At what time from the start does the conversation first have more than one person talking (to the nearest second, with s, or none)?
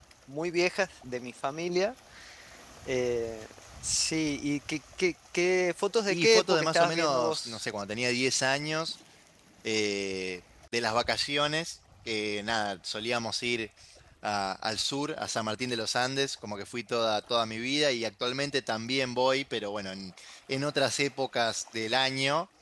6 s